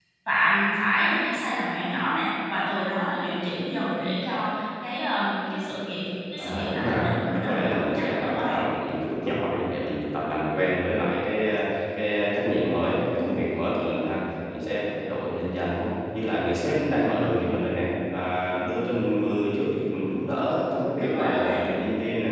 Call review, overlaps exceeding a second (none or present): present